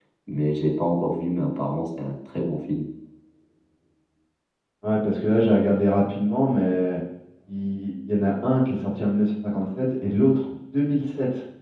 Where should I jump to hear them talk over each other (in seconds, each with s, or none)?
none